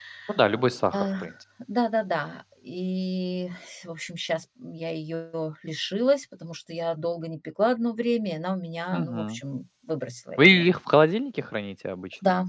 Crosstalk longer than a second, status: none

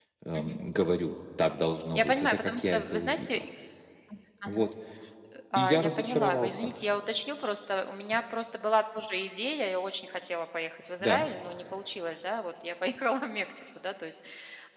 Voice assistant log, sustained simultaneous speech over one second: present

